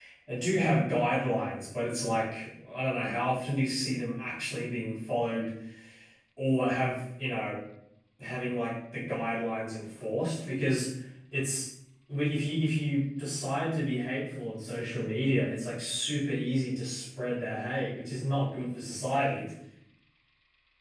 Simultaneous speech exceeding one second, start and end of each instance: none

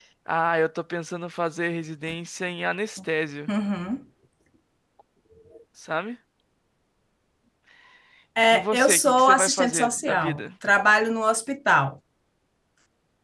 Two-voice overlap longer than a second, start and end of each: 8.5-10.4

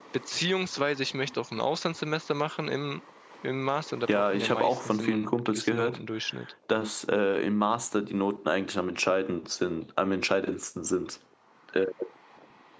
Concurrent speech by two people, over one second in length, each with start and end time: 4.1-6.0

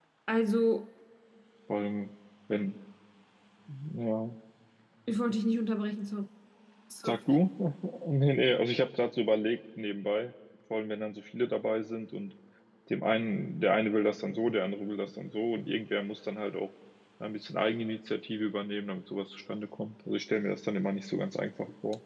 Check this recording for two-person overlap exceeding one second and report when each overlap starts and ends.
none

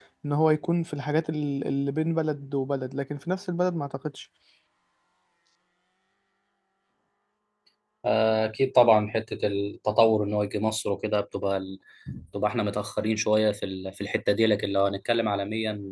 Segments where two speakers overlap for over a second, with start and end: none

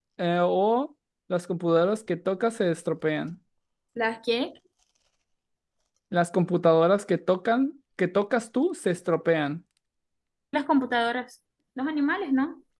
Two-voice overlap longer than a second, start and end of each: none

